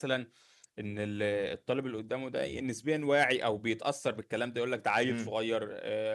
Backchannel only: Yes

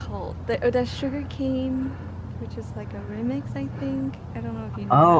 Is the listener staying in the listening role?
No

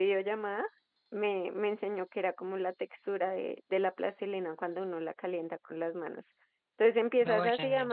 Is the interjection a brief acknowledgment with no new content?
Yes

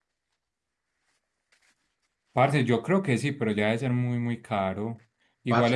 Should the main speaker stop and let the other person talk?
No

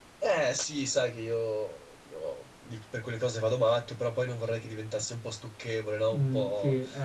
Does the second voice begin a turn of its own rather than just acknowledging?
Yes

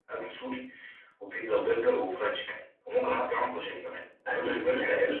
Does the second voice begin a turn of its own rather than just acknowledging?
Yes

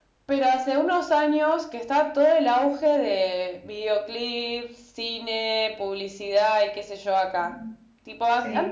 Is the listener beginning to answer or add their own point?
No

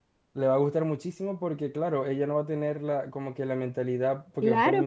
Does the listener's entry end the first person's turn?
Yes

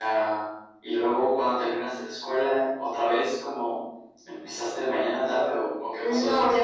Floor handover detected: Yes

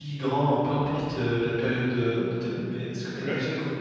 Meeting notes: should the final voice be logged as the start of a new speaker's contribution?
No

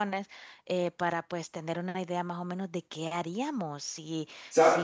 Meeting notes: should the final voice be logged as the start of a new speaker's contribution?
No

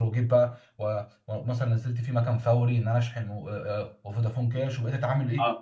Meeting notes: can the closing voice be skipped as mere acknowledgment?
No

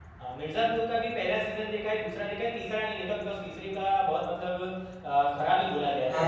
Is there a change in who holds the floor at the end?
Yes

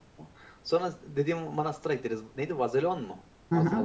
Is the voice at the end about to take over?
Yes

